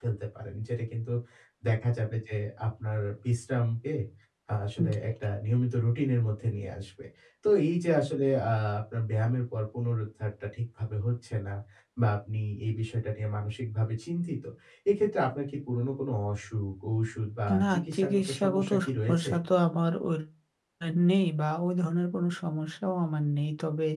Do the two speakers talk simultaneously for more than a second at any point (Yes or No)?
Yes